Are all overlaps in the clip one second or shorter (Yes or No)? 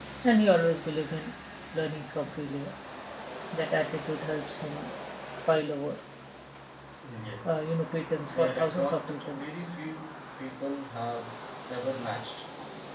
No